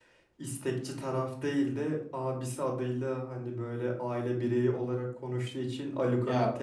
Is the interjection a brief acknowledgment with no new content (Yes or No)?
Yes